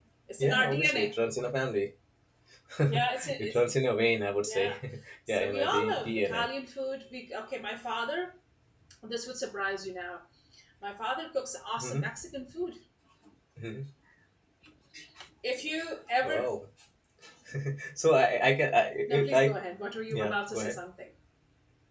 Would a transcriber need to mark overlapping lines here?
Yes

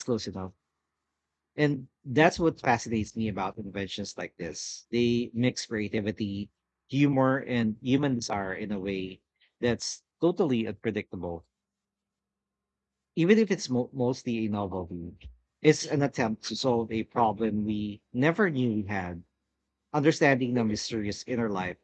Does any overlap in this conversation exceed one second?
No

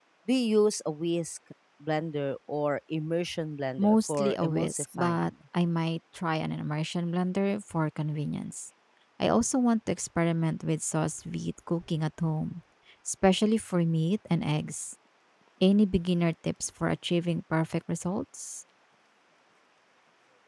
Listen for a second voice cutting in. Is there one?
Yes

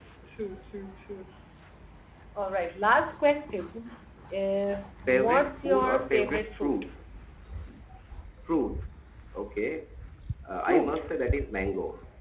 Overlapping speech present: Yes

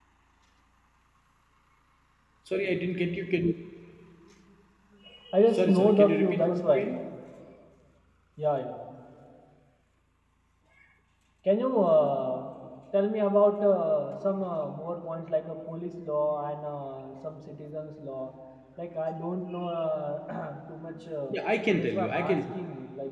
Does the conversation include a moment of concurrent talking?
Yes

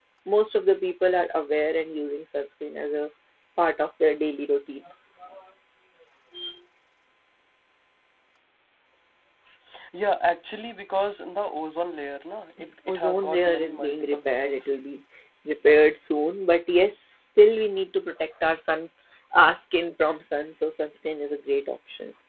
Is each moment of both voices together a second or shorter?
No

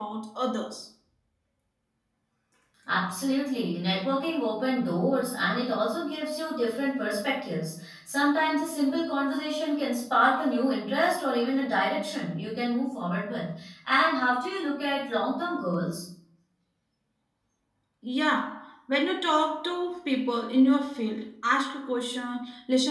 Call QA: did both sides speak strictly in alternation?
Yes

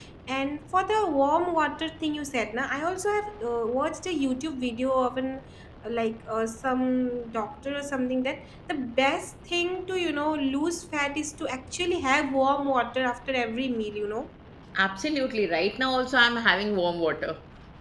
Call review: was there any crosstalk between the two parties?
No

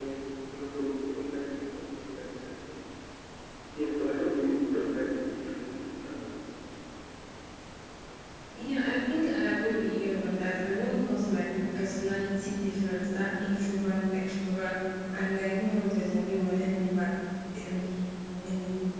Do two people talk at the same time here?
No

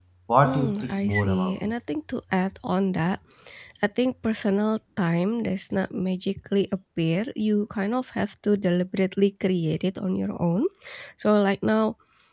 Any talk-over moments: Yes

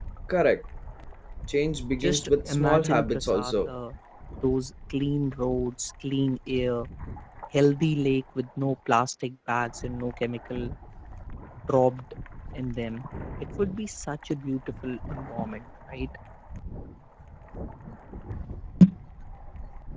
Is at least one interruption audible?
Yes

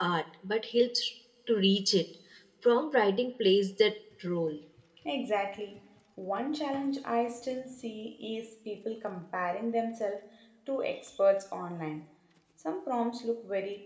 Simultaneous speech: No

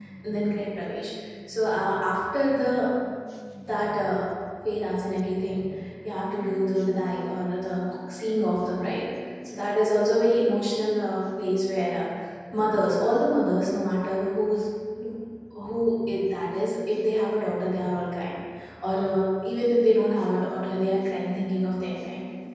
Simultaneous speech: No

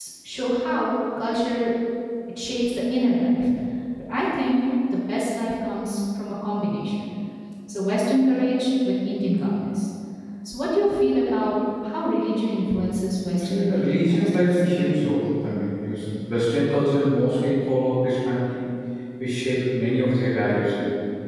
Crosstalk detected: Yes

